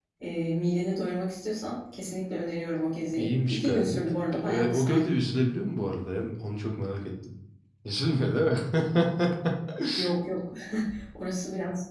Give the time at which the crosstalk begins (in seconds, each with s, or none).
3.1 s